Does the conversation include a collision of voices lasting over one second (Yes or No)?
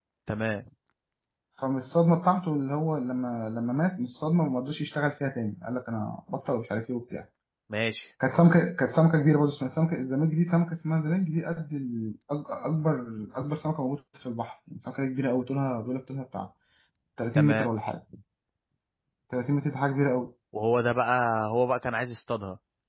No